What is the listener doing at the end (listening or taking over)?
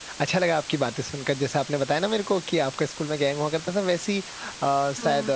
listening